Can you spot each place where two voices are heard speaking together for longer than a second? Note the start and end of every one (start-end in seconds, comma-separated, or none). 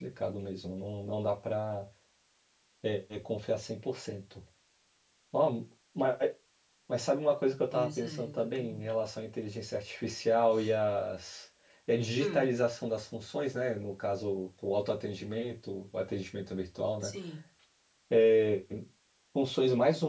7.7-8.9